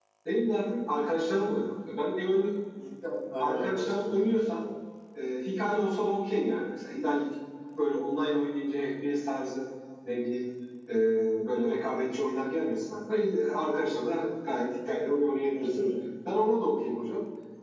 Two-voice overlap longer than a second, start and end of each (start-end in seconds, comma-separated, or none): 3.4-4.6